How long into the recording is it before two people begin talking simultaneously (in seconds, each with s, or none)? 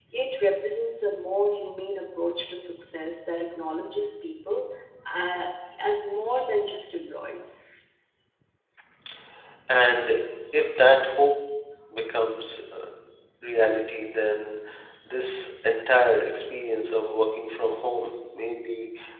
none